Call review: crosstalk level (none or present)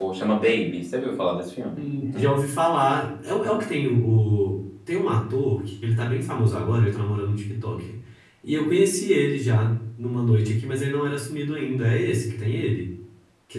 none